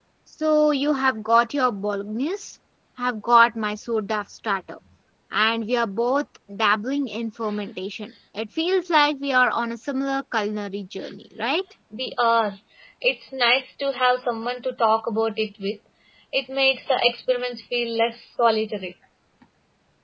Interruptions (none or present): none